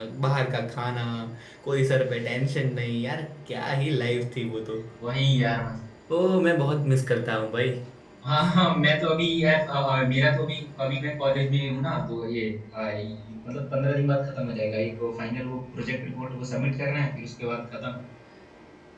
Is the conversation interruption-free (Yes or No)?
Yes